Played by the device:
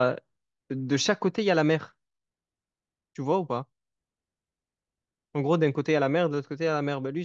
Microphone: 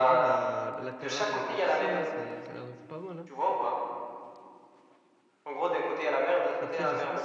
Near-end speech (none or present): present